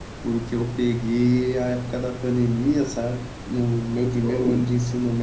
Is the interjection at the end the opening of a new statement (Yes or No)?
No